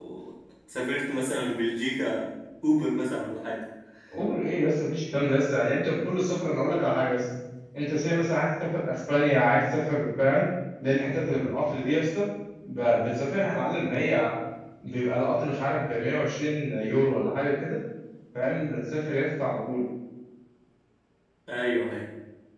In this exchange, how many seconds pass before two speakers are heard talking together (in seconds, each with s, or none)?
none